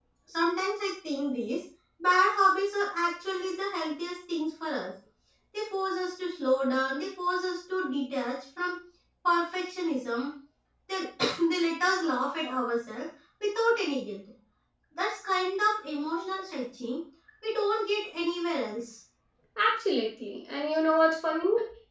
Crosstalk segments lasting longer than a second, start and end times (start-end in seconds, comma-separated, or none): none